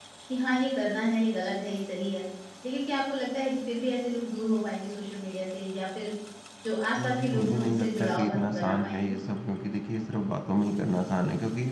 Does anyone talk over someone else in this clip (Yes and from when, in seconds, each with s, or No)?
Yes, from 7.0 s